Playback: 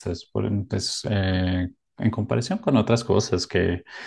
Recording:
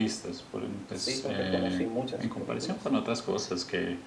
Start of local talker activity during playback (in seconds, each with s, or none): 0.9 s